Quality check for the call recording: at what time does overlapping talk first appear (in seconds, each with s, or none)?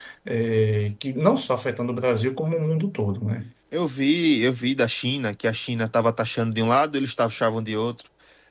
none